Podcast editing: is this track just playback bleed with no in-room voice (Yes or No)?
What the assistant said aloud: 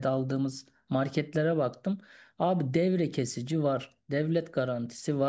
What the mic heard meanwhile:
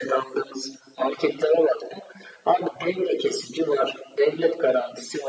Yes